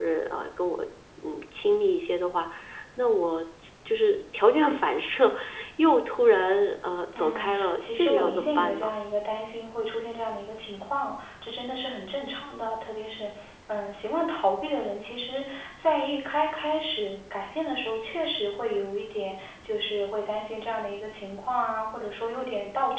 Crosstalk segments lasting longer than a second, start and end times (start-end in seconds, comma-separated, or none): 7.2-8.9